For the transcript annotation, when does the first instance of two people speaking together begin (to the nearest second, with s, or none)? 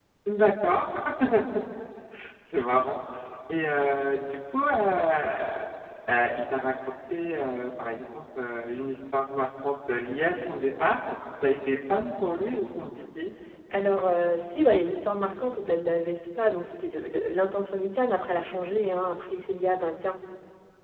none